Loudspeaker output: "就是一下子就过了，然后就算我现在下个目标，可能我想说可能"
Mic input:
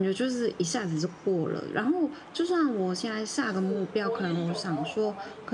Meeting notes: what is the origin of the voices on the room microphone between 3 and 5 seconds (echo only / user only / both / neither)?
both